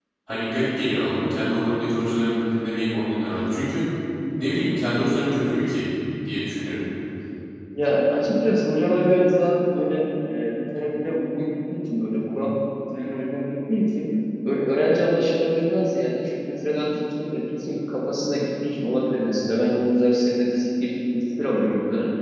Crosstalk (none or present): none